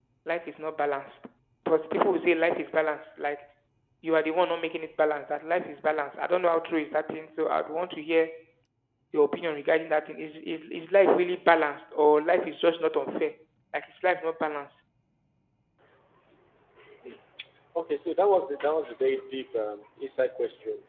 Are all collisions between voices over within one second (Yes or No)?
Yes